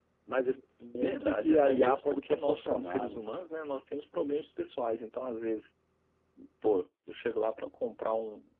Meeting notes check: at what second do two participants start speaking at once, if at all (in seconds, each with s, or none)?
1.0 s